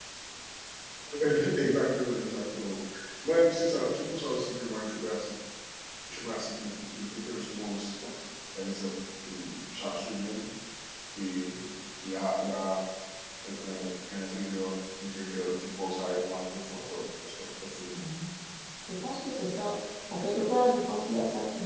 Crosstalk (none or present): none